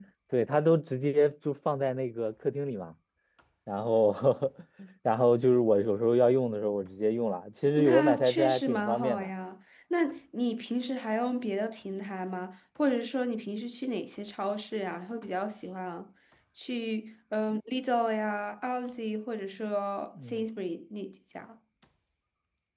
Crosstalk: present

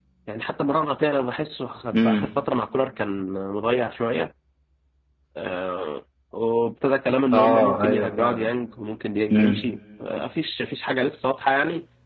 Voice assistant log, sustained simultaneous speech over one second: present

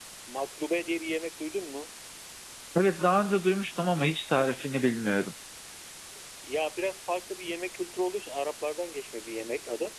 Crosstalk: none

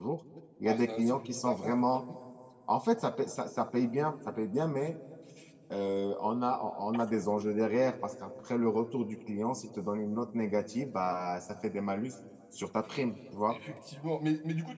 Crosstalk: present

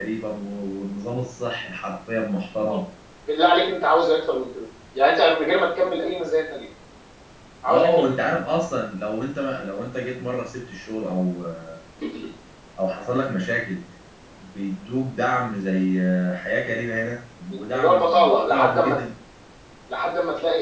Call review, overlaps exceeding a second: present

